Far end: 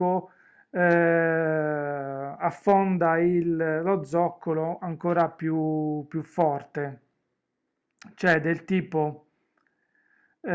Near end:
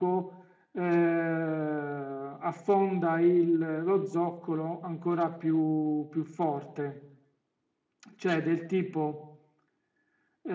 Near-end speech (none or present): none